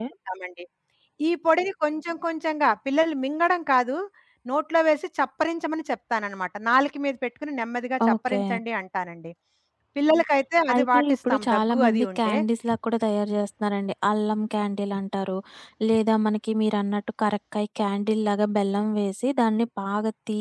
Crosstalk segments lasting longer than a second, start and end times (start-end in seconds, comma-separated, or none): 10.7-12.3